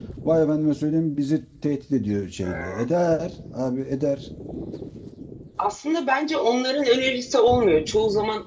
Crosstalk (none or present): none